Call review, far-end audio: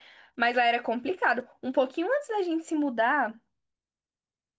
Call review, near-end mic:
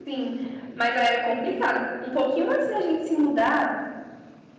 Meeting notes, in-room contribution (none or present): none